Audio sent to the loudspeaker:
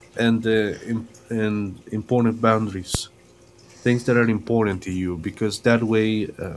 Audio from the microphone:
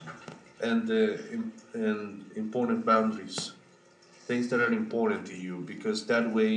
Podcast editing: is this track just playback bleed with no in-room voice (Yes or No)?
Yes